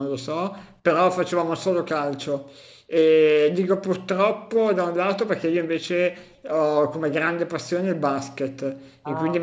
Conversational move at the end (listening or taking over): listening